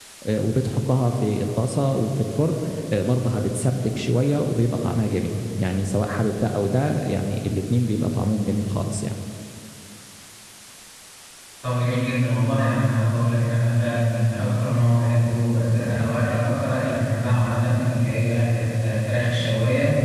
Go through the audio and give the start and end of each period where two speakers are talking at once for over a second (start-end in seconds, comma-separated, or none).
none